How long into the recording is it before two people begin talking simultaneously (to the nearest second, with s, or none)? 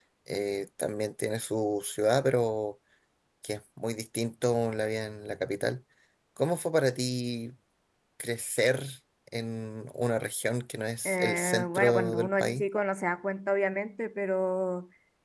11 s